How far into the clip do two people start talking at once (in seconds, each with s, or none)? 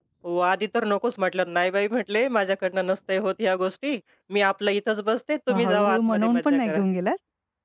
5.5 s